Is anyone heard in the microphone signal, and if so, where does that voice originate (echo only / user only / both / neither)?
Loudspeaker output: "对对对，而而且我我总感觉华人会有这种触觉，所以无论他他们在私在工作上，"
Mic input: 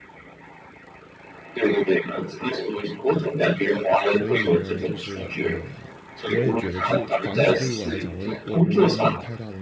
both